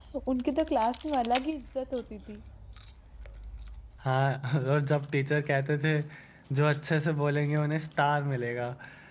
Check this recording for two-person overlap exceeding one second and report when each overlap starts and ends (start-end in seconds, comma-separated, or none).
none